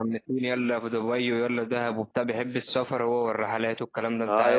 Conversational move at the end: taking over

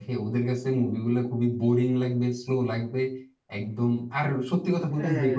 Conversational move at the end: listening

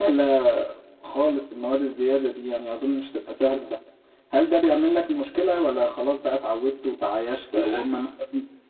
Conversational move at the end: listening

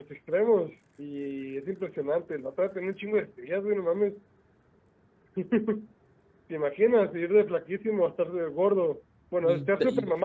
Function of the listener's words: listening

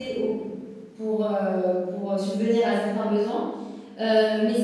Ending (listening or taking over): listening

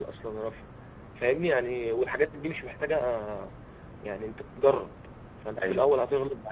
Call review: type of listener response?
listening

